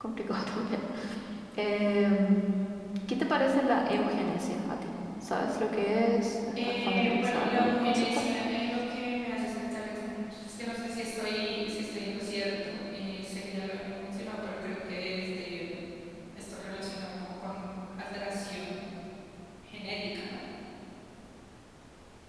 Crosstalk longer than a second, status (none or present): present